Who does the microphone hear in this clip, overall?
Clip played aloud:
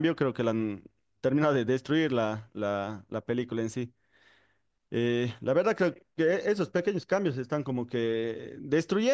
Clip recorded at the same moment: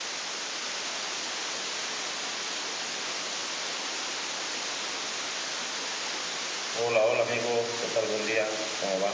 user only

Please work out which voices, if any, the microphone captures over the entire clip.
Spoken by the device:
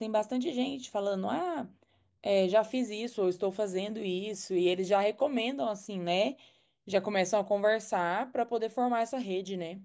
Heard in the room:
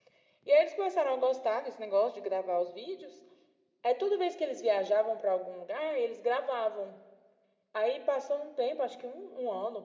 user only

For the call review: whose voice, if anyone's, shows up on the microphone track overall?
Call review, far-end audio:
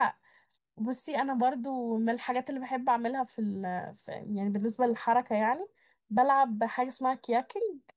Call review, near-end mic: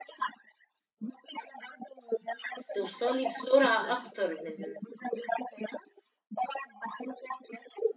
both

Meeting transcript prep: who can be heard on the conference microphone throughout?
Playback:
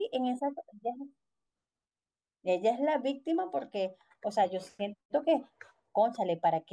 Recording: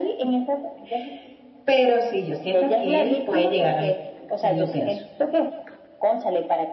both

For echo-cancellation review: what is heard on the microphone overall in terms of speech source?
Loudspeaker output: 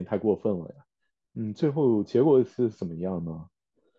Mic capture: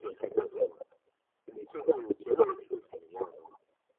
echo only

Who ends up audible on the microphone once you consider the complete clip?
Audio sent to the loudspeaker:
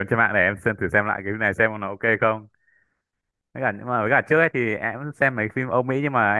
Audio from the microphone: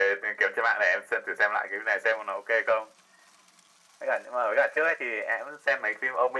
echo only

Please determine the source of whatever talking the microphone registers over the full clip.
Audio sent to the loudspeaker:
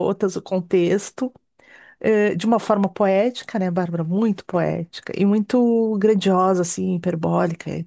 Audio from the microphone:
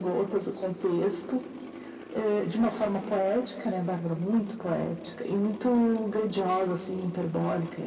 echo only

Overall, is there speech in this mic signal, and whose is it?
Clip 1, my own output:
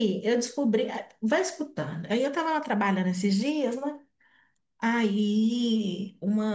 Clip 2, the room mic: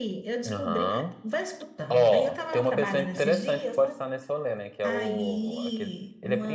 both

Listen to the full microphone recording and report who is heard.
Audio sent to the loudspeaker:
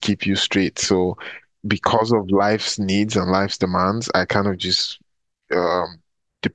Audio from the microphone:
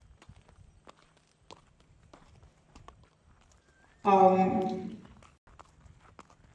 user only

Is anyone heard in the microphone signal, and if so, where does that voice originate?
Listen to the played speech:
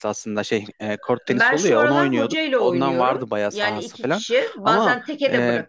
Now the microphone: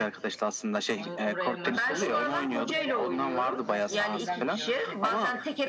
both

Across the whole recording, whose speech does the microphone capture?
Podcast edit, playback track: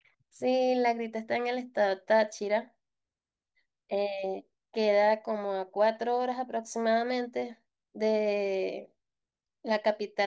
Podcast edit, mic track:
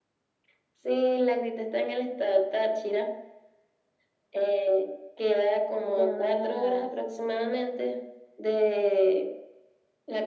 both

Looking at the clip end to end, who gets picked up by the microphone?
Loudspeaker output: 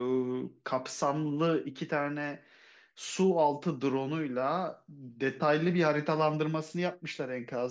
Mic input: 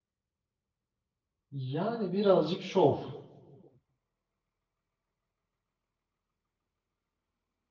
user only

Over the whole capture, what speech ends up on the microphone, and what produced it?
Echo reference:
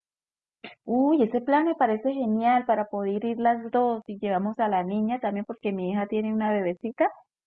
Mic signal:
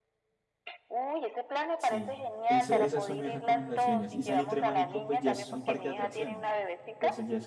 both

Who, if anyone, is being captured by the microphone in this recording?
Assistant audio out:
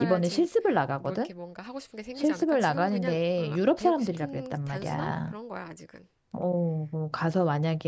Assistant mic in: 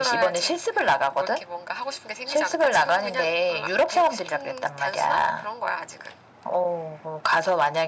echo only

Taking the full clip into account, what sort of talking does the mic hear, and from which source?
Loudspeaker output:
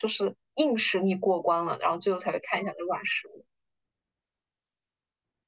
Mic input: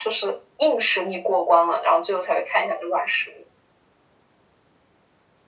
echo only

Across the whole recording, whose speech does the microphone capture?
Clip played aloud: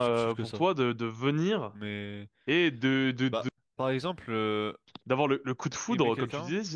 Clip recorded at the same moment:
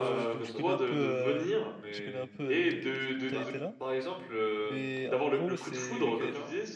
both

